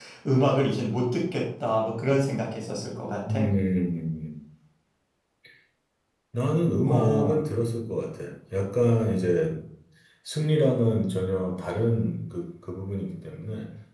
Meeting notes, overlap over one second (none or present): none